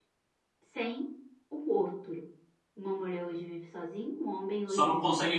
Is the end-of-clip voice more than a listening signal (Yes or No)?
Yes